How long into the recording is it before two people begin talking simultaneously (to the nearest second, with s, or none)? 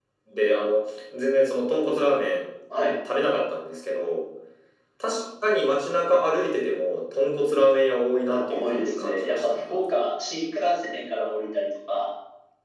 8 s